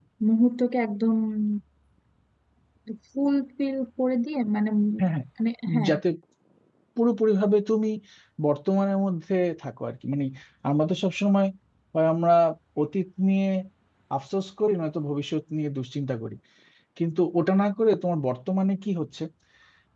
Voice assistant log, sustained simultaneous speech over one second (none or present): none